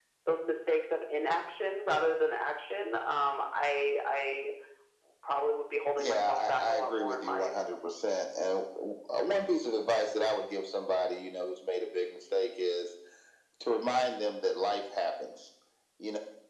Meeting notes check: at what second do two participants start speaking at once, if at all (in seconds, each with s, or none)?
6.0 s